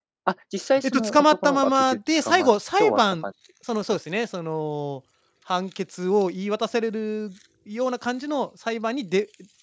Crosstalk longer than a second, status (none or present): present